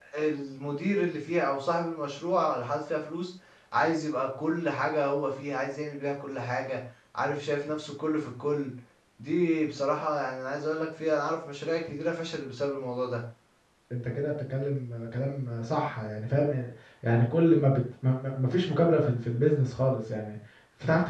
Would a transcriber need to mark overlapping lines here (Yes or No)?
No